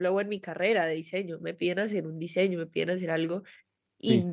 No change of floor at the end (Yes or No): Yes